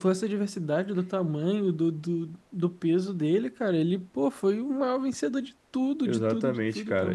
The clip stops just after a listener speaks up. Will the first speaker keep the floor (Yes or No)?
No